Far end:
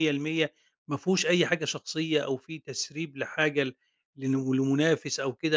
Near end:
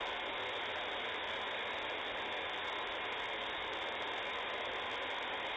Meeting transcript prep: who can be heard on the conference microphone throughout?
neither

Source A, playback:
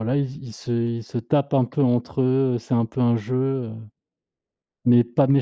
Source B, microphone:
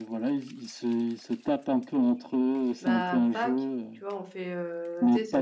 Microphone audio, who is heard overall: both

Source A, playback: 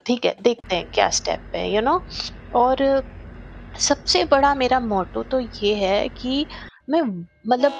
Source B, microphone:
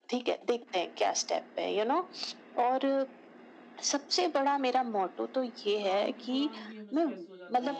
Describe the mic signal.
both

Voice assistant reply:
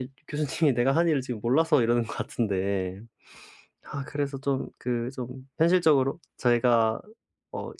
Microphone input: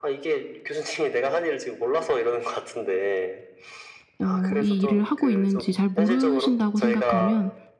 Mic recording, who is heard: both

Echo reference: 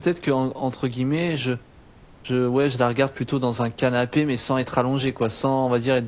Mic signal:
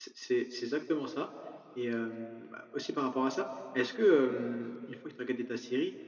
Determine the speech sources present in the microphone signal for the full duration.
user only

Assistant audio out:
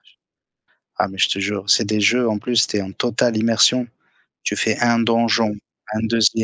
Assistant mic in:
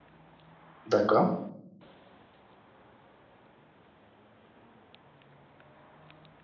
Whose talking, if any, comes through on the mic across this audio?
user only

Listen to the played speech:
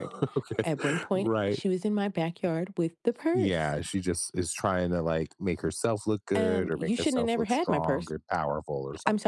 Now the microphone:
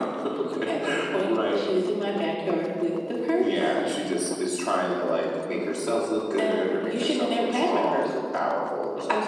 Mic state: echo only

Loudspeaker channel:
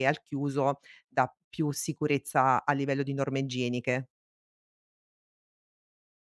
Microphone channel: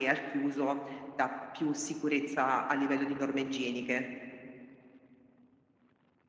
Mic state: echo only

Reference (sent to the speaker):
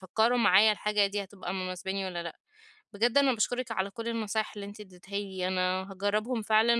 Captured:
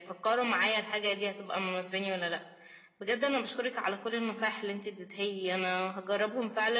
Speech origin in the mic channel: echo only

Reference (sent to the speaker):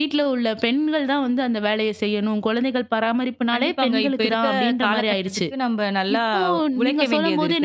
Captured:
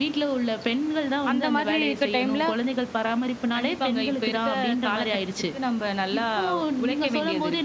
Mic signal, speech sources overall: both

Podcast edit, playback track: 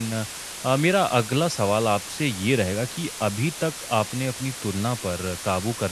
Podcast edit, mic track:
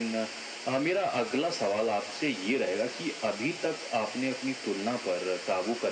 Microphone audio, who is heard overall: echo only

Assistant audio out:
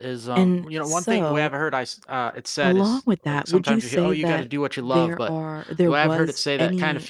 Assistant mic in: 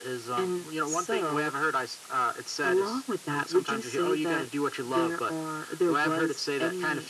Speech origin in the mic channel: echo only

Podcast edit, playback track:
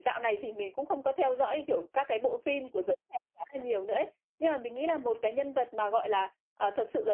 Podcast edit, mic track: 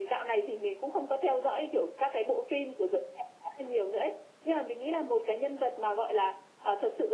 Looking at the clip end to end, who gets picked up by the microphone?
echo only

